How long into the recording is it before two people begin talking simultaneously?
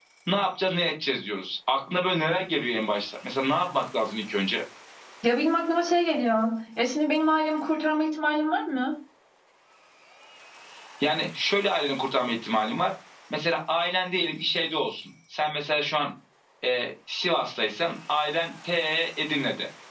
none

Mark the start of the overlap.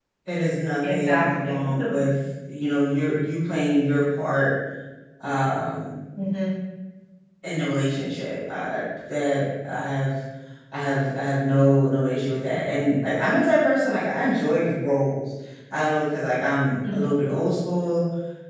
0.8 s

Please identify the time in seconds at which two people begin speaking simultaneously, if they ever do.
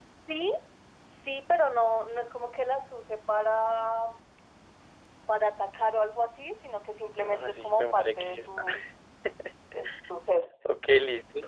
7.2 s

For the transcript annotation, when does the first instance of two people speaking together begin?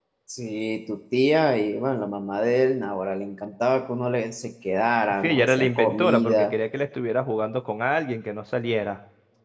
5.2 s

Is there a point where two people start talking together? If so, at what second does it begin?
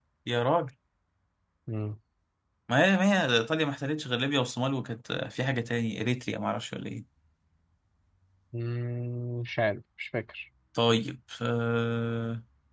none

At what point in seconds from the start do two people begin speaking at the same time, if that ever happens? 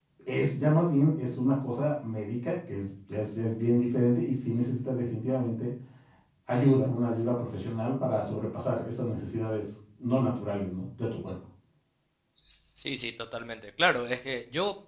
none

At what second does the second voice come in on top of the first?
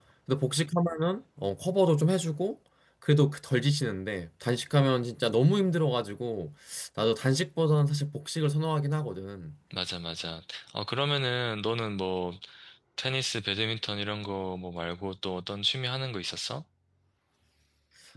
none

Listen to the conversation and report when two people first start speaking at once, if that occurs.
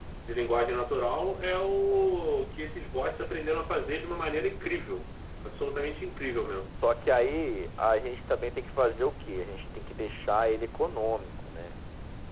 none

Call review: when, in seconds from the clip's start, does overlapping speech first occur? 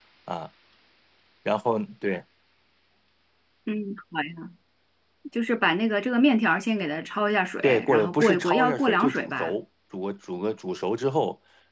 7.6 s

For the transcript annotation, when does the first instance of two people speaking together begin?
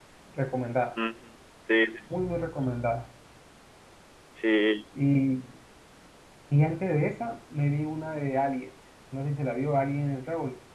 none

